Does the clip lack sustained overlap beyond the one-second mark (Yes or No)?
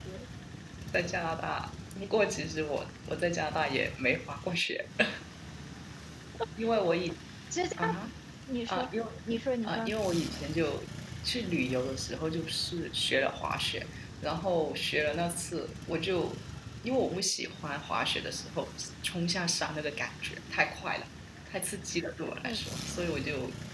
Yes